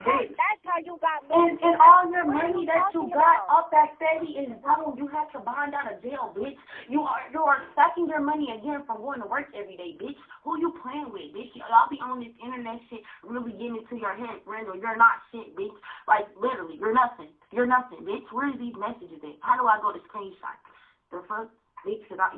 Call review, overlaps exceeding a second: present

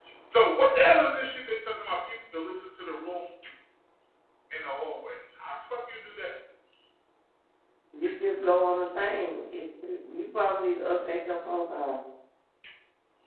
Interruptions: none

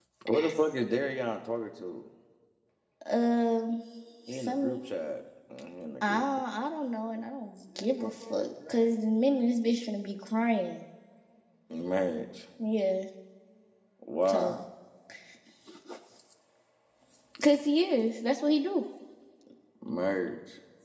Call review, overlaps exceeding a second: none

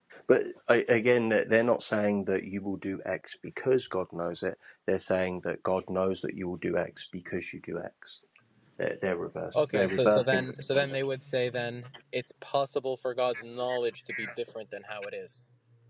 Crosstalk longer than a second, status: present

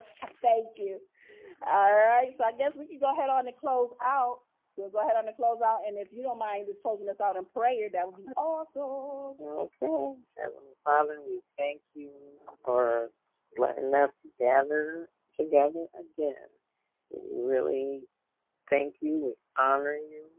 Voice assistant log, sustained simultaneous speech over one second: none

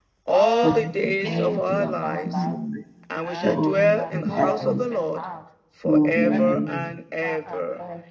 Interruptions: present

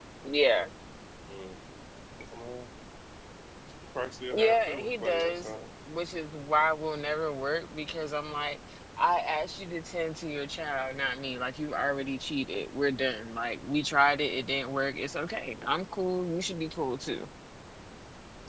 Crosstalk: present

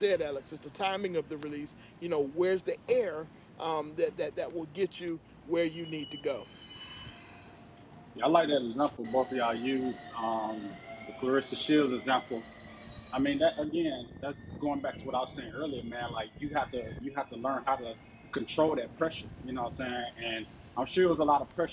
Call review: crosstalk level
none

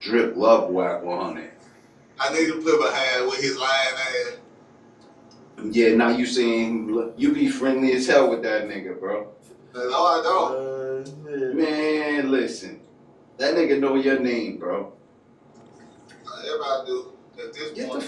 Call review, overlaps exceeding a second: none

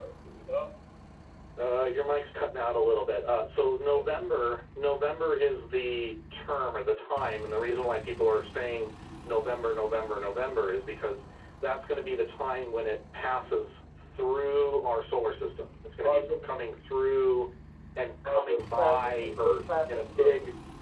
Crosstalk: present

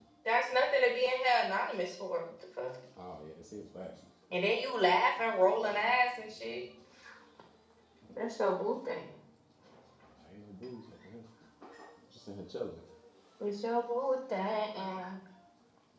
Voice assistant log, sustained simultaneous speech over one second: none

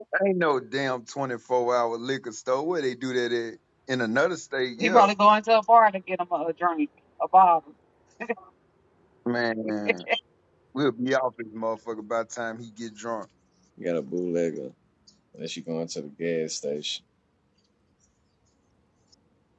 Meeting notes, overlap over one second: none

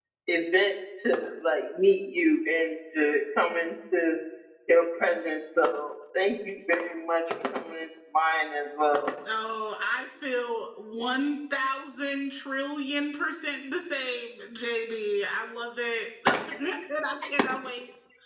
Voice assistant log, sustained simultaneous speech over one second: none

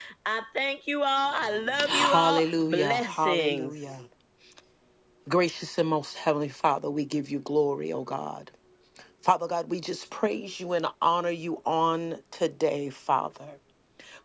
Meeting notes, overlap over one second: present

